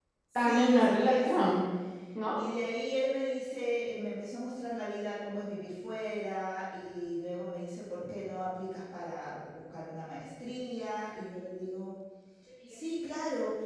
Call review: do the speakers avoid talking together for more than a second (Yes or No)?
No